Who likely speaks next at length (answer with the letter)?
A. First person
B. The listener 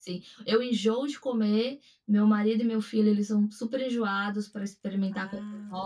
A